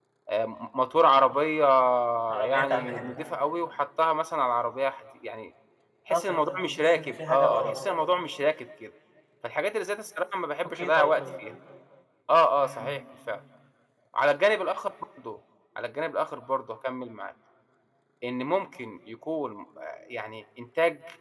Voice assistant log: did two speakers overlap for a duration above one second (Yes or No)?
Yes